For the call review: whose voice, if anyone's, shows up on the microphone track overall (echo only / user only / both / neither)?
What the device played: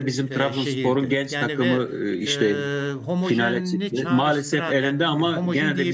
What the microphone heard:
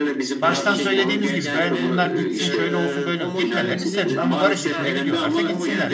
both